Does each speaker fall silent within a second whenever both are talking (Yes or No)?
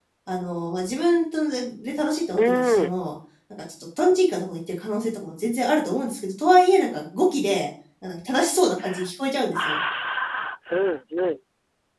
Yes